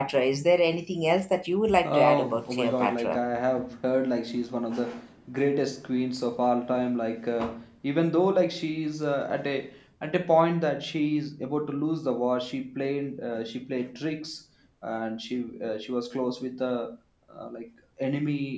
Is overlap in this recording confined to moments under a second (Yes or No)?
No